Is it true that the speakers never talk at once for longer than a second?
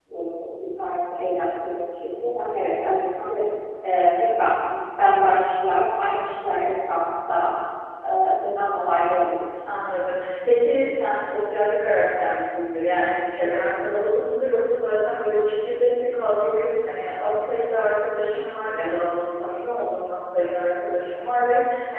Yes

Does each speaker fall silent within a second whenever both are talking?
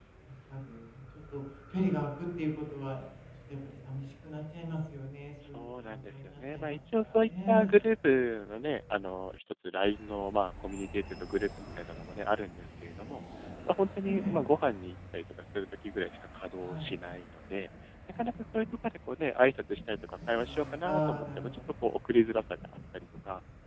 No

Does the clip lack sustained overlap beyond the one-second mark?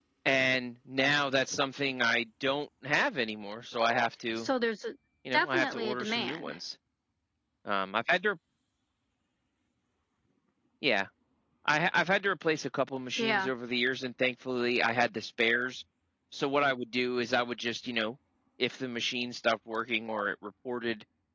No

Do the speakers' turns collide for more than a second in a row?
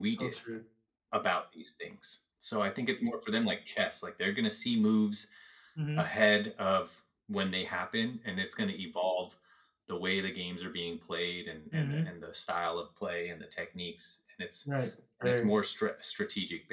No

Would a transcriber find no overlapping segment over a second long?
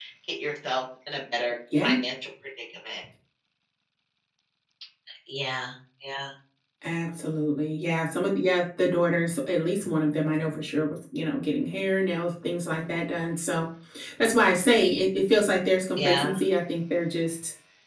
Yes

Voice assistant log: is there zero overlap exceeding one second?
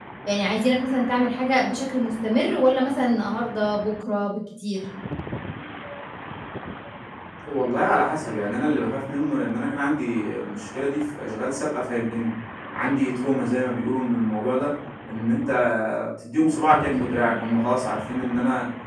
Yes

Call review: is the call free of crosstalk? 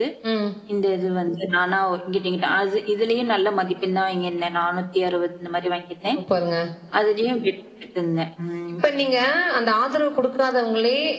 Yes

